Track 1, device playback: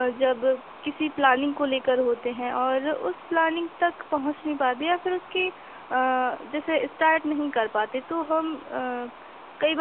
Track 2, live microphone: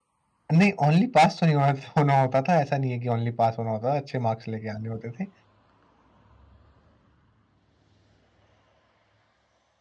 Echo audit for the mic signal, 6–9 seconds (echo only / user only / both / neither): neither